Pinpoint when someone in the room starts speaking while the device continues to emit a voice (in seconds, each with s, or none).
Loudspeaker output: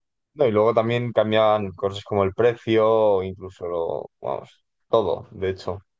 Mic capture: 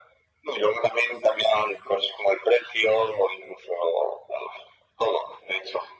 none